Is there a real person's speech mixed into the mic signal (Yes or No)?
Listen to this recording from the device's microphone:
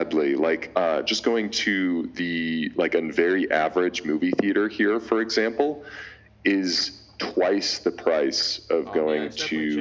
Yes